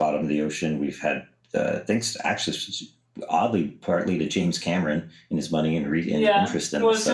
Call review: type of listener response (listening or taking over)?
taking over